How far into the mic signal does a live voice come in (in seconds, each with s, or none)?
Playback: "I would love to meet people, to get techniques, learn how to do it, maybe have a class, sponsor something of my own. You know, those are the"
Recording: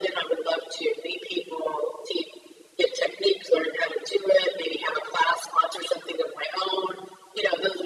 none